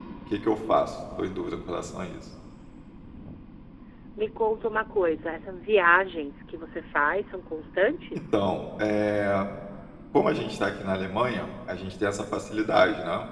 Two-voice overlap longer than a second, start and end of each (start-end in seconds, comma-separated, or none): none